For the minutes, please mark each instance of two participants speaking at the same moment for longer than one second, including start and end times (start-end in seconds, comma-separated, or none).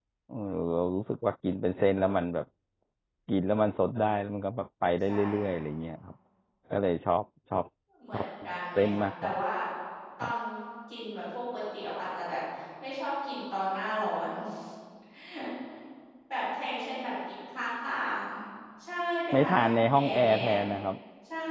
8.1-9.3, 19.3-20.6